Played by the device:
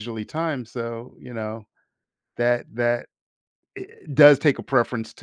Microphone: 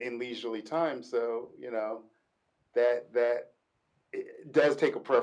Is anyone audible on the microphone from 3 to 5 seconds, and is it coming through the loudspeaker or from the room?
echo only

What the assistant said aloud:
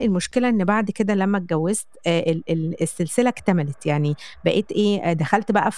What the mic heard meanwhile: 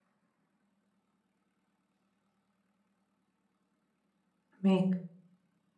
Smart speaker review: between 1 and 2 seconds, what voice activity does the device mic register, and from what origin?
neither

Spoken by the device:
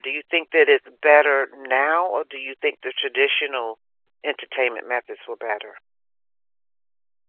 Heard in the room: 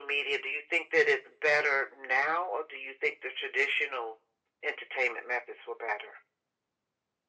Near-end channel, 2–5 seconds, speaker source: echo only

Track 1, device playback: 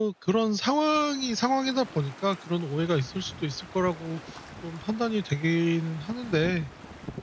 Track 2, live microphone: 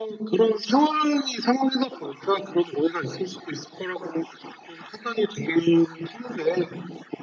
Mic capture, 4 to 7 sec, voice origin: echo only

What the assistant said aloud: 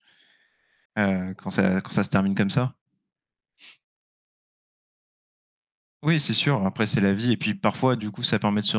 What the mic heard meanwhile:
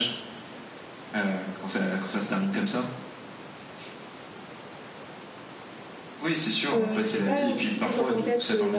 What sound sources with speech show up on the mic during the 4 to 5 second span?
neither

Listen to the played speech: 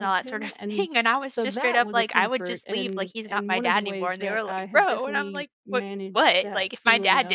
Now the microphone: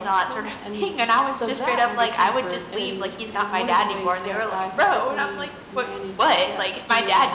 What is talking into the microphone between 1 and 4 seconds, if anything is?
echo only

